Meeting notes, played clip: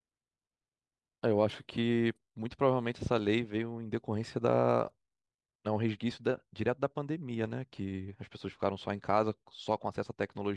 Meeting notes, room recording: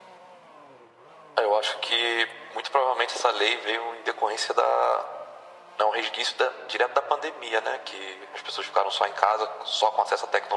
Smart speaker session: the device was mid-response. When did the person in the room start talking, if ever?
none

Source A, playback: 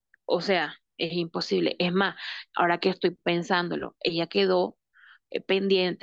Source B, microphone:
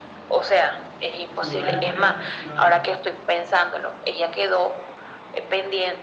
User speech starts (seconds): 1.4 s

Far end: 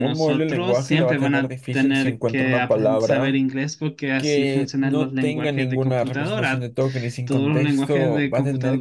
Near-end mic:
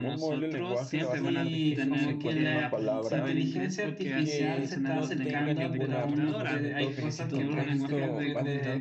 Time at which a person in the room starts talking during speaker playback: 1.0 s

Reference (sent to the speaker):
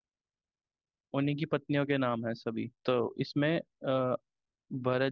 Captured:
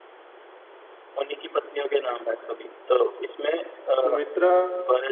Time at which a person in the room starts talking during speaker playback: 3.9 s

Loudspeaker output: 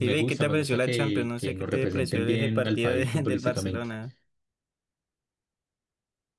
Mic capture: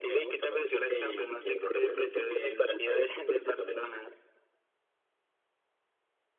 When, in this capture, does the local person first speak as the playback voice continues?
none

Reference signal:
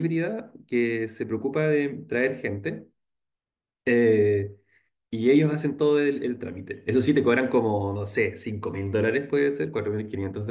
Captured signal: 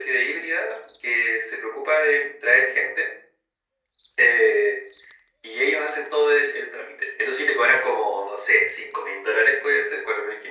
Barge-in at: none

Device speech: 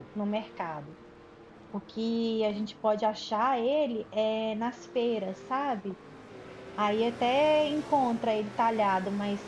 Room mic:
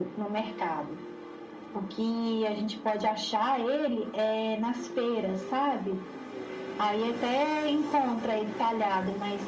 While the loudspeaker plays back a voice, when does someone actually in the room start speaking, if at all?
none

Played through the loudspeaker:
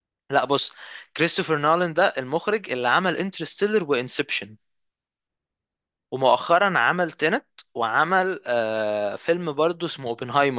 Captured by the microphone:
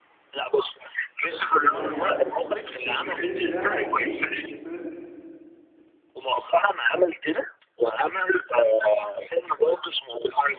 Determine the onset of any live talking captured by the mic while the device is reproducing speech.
1.5 s

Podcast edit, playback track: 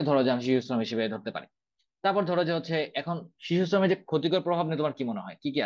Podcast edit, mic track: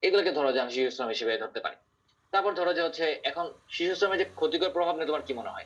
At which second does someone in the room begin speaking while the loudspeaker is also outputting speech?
none

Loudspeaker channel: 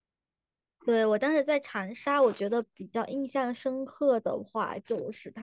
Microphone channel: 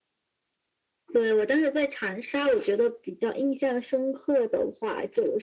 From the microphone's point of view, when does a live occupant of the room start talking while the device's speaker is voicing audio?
none

